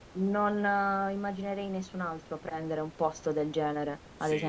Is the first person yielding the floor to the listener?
Yes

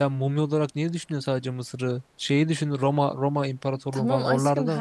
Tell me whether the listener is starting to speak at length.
Yes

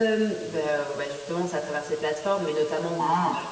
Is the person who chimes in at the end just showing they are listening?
Yes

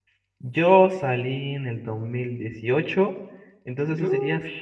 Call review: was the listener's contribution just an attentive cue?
Yes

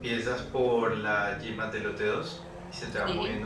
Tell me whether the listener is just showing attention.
Yes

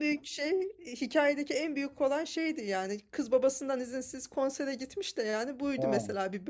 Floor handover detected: No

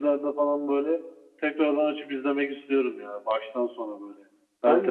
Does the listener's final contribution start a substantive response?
Yes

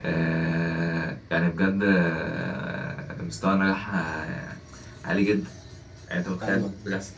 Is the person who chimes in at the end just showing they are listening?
Yes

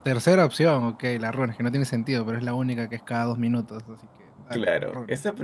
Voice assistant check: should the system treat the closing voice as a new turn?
Yes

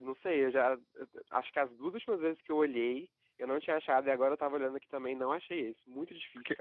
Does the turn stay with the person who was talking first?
No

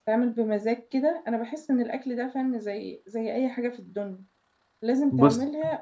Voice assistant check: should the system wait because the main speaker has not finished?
Yes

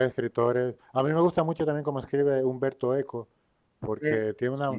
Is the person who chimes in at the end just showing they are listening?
Yes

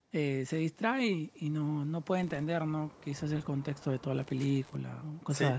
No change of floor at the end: No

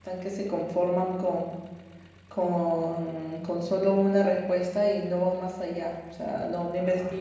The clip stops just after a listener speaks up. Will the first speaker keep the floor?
Yes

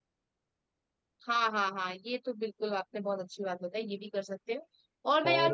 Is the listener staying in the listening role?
Yes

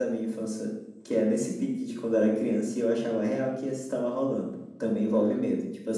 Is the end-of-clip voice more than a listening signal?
No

